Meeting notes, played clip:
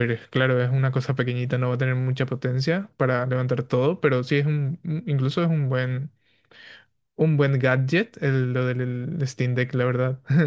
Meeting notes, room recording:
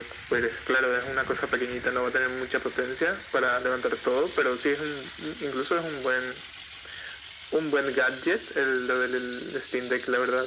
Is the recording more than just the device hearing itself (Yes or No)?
No